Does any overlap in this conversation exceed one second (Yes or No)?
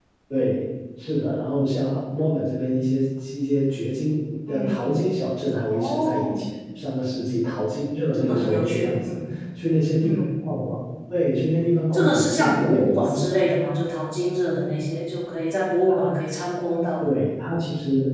Yes